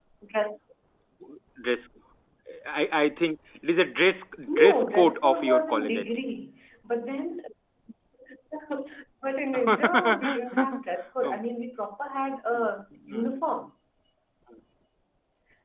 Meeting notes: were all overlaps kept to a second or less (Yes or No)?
No